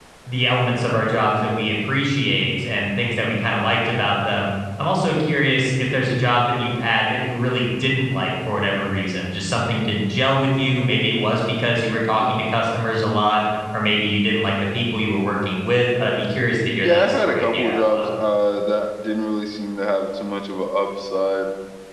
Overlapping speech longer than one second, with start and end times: 16.8-18.1

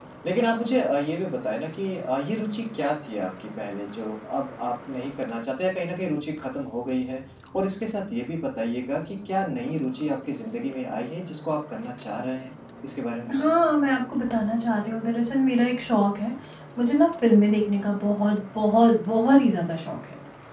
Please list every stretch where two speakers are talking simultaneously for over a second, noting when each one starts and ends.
none

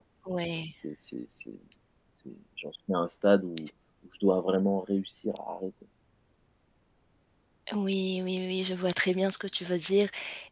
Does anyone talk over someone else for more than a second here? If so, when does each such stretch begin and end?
none

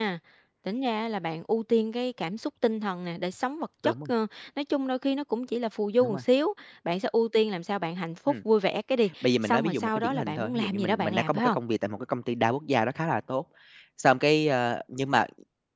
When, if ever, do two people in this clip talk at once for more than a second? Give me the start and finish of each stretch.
9.2-11.6

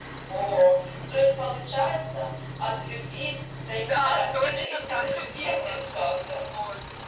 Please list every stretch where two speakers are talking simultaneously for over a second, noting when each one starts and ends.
3.7-5.8

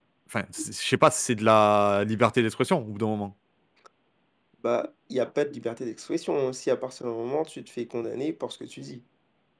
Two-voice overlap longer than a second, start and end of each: none

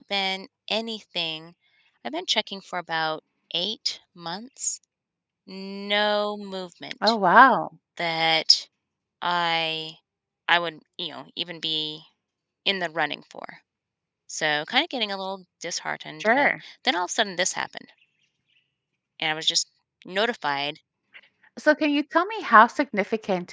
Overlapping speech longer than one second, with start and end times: none

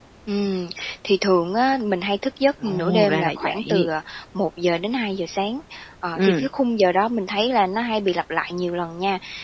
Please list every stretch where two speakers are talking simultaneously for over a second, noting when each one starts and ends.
2.6-3.9

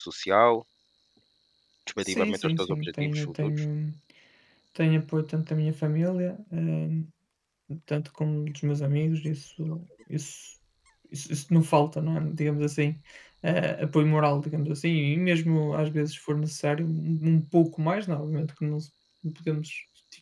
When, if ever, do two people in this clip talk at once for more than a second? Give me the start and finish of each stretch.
2.0-3.5

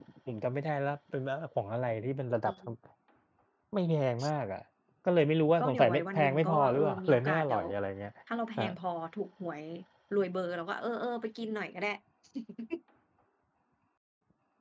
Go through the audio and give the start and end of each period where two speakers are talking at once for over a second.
5.6-7.6

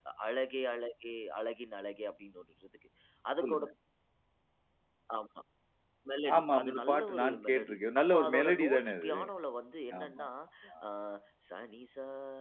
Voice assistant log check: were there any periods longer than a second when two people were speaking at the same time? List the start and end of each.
6.4-9.1

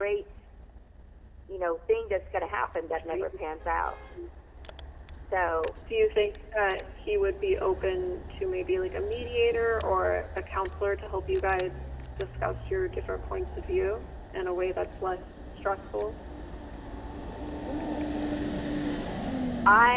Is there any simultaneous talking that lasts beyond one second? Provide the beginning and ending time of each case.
none

